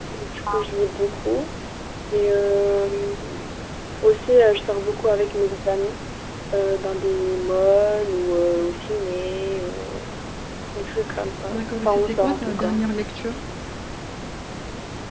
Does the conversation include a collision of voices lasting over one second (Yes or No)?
Yes